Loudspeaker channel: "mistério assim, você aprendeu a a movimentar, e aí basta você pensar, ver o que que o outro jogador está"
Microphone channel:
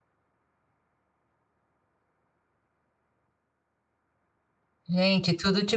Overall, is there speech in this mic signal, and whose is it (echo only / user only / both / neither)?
user only